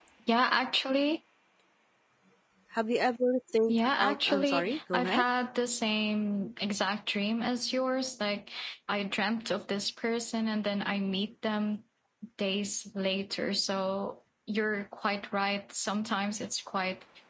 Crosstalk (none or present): present